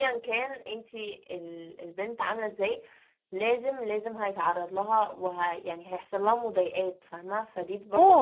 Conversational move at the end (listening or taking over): taking over